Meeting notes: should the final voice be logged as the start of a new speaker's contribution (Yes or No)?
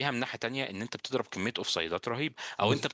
No